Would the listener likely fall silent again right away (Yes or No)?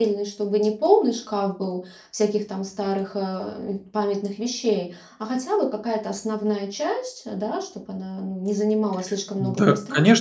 No